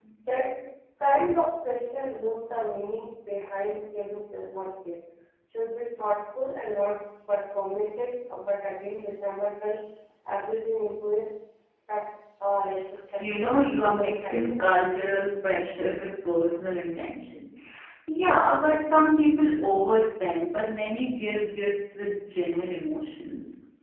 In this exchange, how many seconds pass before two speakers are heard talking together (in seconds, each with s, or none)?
13.2 s